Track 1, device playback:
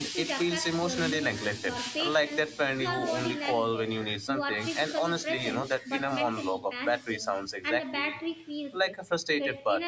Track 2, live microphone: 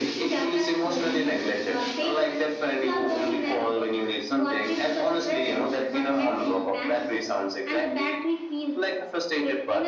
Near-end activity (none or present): none